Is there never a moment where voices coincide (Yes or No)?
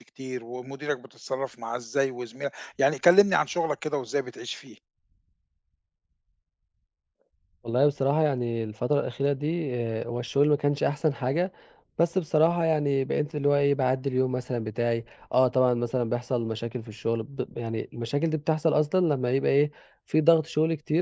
Yes